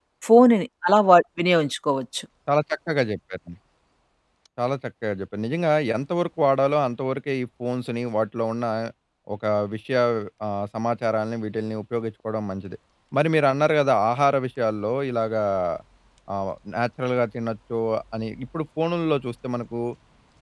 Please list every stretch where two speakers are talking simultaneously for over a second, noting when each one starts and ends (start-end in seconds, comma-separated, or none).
none